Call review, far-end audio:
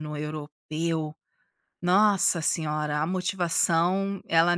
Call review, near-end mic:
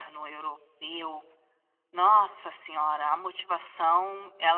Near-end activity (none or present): none